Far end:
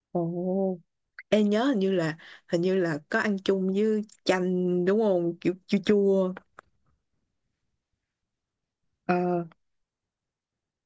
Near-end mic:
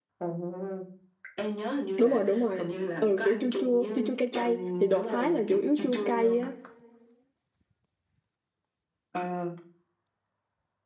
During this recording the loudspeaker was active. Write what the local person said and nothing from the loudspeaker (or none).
đúng rồi đúng rồi ừ kiểu chua chua chua chua cay cay thì đồ Thái là chủ yếu chua cay á